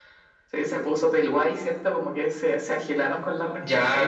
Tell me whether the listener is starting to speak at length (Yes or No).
Yes